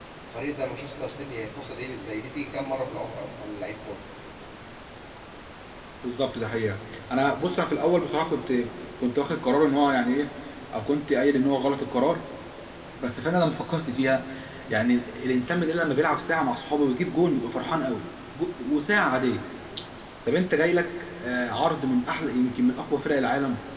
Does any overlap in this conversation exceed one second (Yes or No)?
No